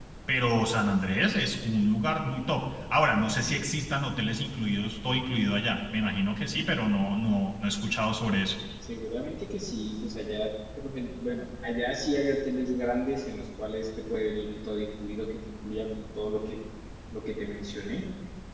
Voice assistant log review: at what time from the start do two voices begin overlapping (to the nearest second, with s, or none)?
none